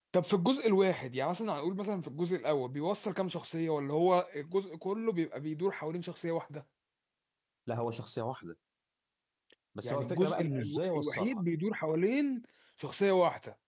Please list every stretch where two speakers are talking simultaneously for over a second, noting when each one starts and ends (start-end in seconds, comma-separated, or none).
9.8-11.4